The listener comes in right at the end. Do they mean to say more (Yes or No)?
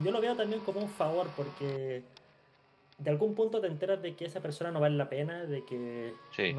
No